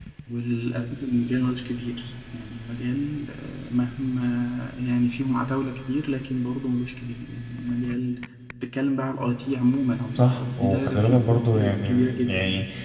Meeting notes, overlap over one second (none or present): present